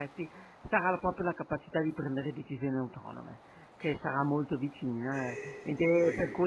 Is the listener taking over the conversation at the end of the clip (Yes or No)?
No